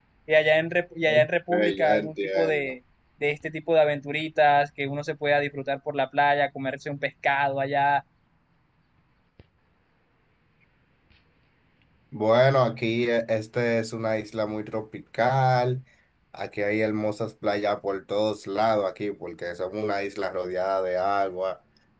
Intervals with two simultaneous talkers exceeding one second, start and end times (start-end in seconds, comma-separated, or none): 1.1-2.7